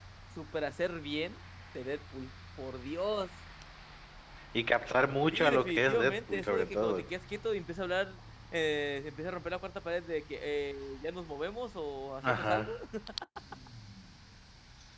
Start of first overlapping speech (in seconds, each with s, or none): 5.3 s